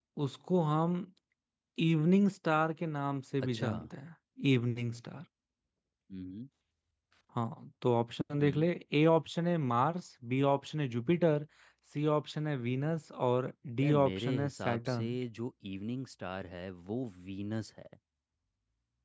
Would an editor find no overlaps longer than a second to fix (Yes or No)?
No